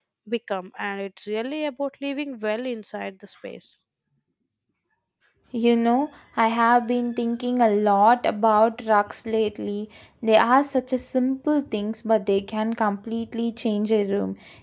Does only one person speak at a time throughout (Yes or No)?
Yes